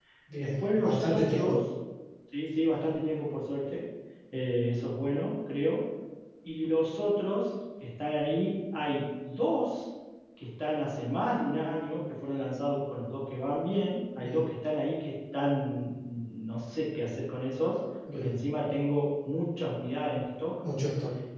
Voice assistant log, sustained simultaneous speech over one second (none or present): present